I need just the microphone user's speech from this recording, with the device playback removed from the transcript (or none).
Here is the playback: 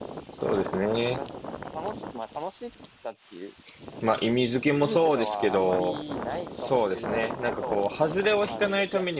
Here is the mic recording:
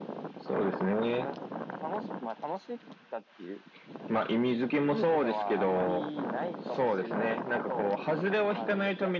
none